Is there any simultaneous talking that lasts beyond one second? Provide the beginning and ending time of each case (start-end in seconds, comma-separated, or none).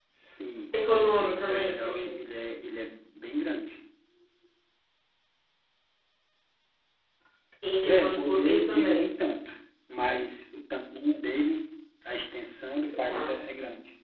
1.0-2.2, 7.8-9.1